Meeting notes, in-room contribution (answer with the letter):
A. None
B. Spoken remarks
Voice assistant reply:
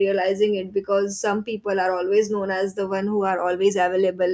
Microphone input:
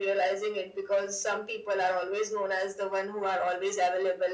A